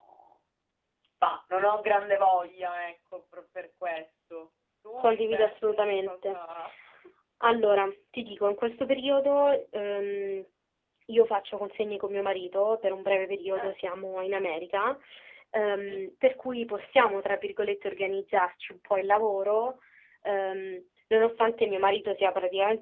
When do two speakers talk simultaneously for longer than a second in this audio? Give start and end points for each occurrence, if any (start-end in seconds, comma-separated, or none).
5.0-6.4